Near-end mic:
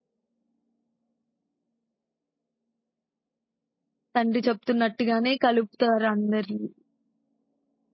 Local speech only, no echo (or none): తండ్రి చెప్తున్నట్టుగానే కలుపుతారు అందరిని.